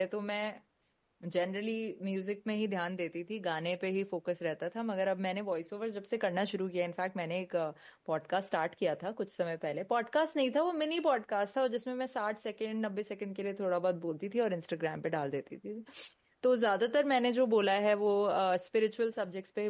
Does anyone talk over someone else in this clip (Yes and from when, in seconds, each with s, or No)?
No